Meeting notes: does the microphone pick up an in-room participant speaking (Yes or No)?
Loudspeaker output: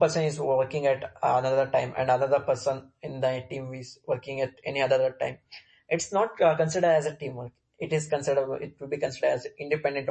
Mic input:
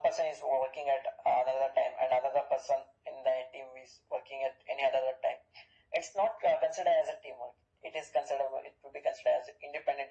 No